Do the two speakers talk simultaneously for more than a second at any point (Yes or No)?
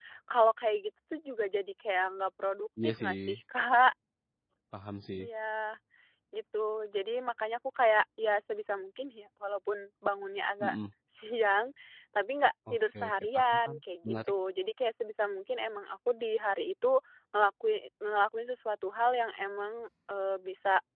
Yes